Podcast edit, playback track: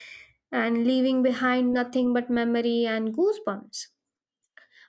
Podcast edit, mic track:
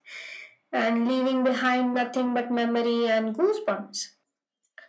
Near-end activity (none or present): none